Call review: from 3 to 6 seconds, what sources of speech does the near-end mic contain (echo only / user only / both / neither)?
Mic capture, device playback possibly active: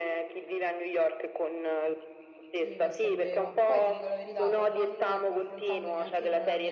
both